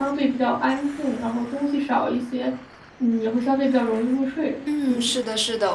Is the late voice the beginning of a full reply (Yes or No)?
Yes